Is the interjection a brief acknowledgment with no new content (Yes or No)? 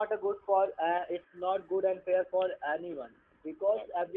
Yes